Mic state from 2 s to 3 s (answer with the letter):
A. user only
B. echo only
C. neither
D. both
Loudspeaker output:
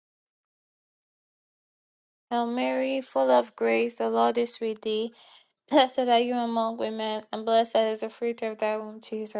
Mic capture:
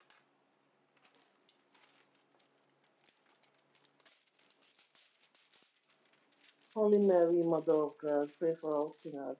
C